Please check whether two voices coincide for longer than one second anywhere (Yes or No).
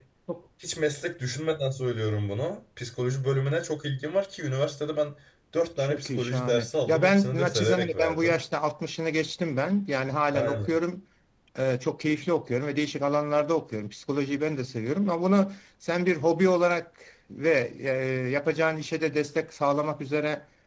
Yes